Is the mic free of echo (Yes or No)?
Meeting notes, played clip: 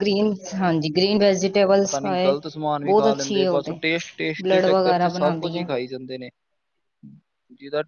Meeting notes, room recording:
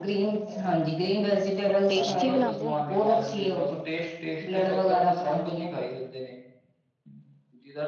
No